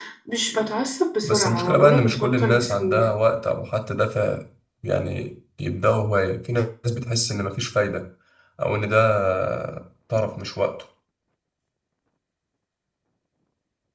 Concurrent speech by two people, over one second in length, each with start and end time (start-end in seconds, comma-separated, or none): 1.2-3.1